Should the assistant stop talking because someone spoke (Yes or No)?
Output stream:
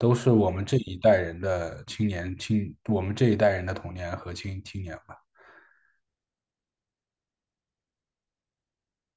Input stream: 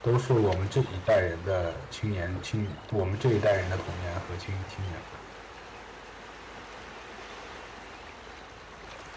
No